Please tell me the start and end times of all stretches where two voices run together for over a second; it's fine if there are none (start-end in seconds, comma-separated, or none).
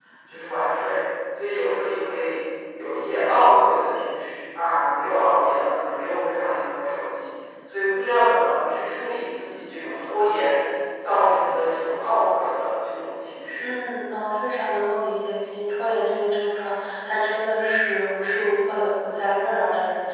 none